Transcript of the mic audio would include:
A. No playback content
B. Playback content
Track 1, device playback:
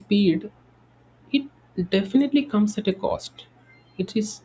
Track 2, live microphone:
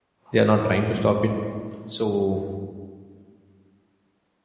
A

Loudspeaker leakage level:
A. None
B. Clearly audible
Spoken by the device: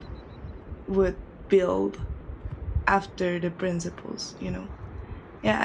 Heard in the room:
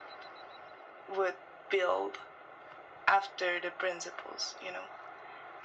B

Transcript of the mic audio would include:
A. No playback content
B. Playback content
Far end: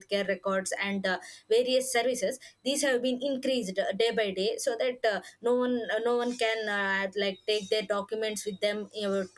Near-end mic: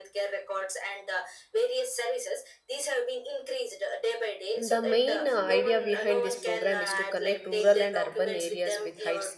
B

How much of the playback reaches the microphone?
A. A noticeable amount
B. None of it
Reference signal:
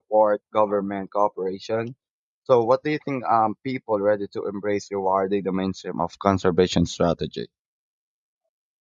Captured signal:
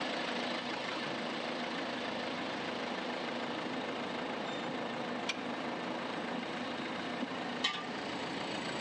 B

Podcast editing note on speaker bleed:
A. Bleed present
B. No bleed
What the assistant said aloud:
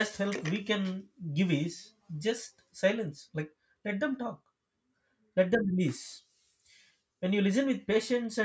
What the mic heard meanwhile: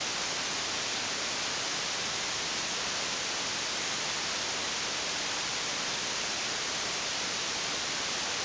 B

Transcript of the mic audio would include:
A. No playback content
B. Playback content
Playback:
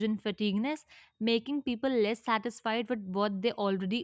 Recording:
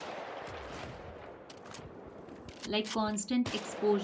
A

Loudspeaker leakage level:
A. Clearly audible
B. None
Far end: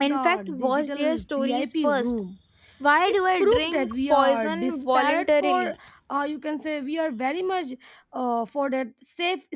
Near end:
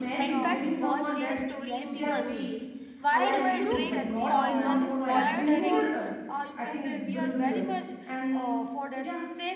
A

